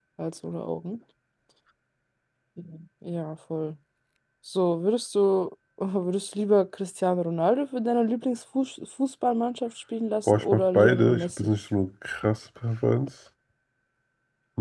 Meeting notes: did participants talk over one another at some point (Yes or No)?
Yes